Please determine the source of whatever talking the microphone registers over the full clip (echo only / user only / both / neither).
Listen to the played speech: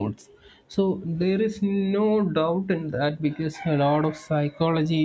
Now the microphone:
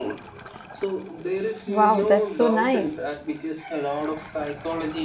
both